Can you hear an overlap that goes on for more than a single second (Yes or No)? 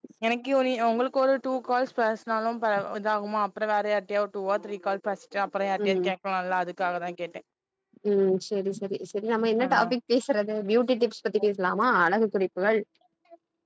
No